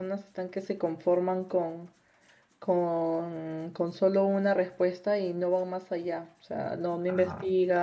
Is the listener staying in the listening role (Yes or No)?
Yes